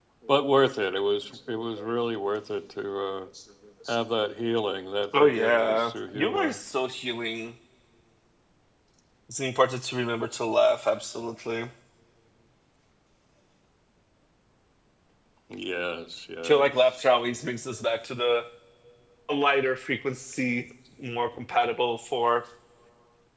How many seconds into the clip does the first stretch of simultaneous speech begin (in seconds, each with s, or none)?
5.2 s